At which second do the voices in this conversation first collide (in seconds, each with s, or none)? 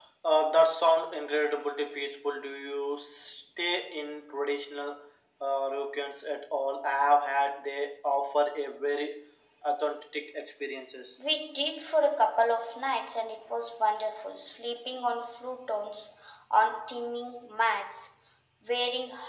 none